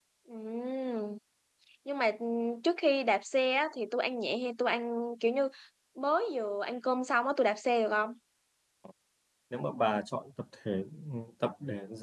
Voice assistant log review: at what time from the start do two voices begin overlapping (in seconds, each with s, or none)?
none